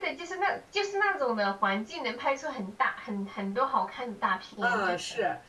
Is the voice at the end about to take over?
Yes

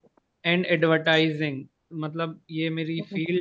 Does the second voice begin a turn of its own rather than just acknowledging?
No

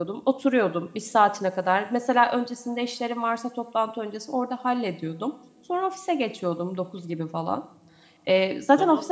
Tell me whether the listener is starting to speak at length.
Yes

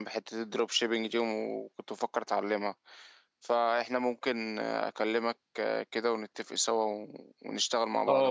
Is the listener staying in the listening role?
No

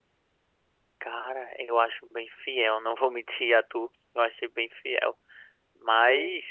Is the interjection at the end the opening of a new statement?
No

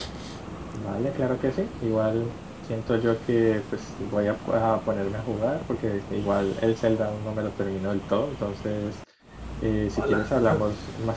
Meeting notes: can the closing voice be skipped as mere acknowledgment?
Yes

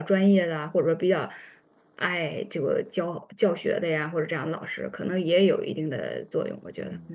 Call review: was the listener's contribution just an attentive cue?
No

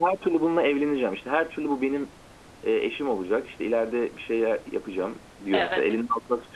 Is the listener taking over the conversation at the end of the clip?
No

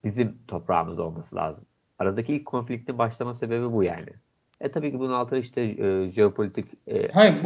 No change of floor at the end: No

